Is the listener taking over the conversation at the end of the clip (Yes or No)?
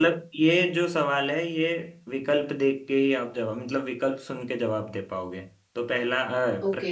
No